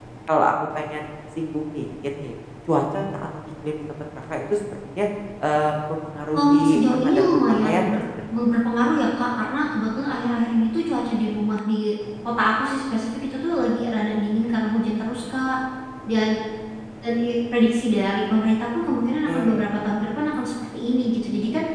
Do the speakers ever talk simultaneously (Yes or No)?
Yes